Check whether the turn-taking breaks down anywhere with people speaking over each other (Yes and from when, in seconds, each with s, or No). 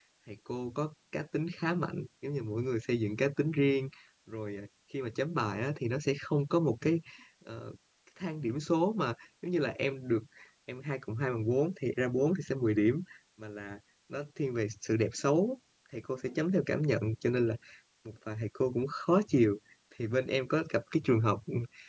No